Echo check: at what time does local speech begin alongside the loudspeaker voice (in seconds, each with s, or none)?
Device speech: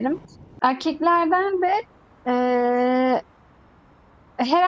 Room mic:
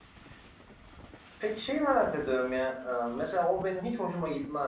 1.4 s